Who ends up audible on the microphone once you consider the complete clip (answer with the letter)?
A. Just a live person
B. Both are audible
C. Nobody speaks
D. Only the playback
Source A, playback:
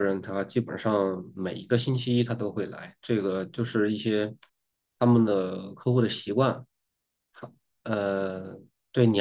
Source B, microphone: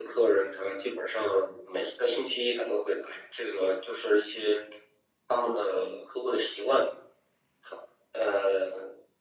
D